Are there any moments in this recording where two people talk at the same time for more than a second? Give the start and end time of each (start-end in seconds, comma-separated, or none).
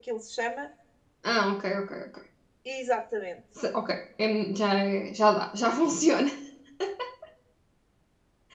none